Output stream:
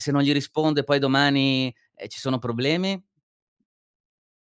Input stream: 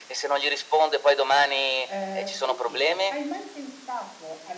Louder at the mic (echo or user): echo